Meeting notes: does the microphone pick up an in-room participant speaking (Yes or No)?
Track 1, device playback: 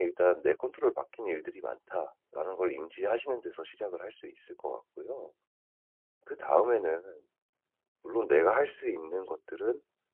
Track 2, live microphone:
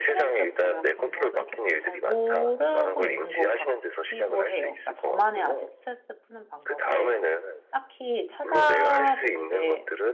Yes